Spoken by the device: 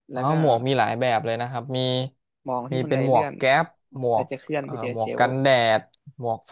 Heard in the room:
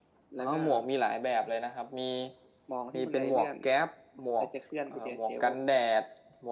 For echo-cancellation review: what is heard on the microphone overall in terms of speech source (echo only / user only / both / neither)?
echo only